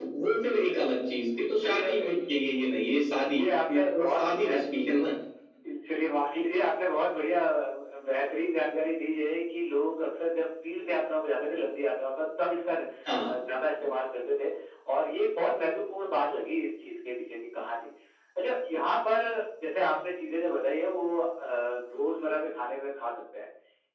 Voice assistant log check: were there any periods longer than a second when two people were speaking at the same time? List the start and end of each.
3.4-4.6

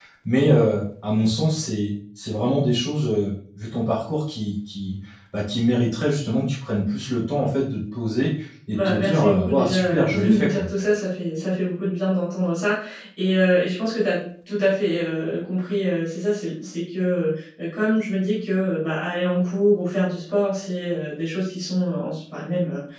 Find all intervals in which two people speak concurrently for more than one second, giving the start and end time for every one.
8.7-10.7

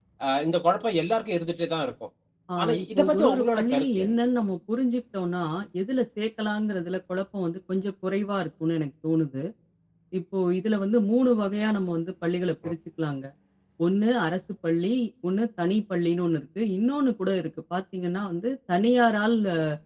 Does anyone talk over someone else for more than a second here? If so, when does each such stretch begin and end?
2.6-4.2

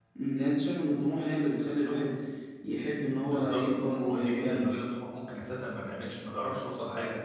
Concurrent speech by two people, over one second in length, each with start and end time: 3.2-4.7

